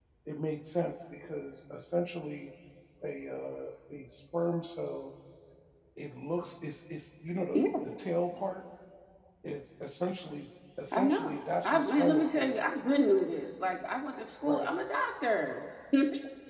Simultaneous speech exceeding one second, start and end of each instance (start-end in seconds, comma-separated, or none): 10.9-12.6